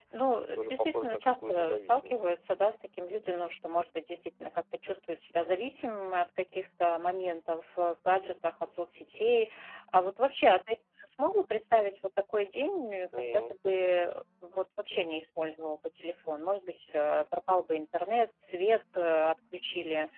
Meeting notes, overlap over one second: present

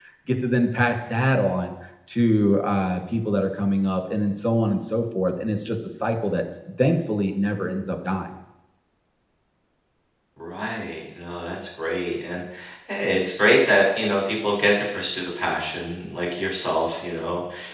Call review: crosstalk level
none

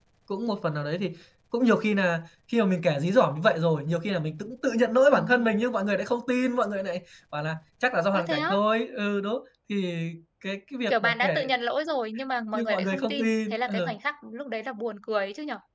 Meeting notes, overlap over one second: present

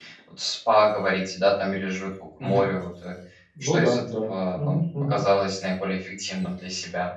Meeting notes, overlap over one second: present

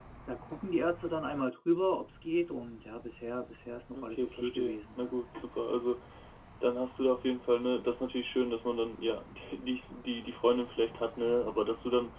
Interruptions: present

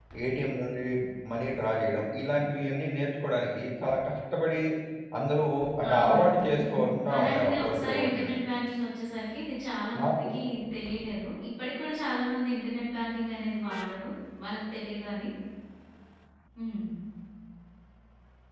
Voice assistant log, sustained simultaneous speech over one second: present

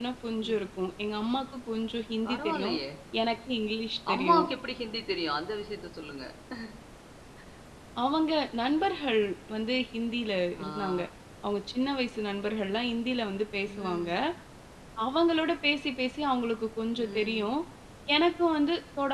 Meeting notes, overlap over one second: none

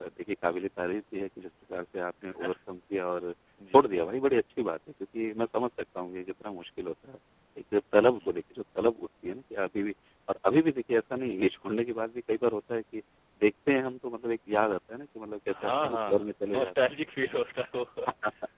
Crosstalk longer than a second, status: present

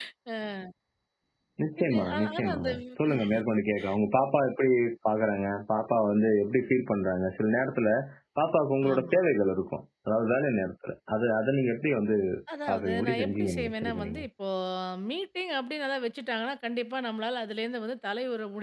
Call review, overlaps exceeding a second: present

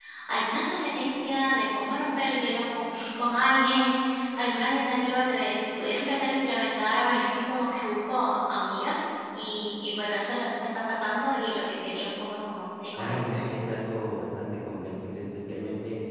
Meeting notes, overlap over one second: none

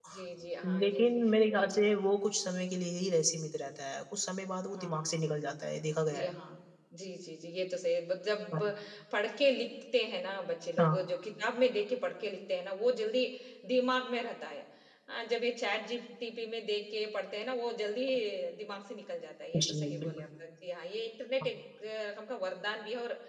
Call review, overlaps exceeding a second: present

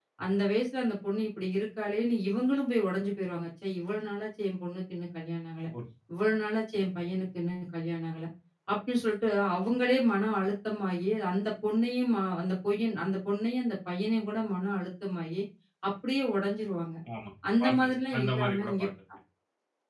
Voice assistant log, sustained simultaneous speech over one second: present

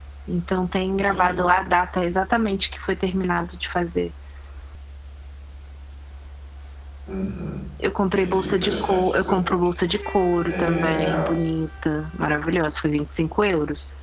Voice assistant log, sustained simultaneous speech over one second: present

